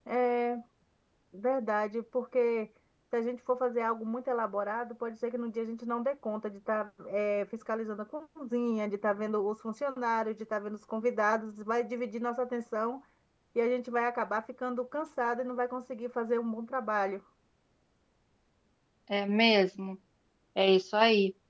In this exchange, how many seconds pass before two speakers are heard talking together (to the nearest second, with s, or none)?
none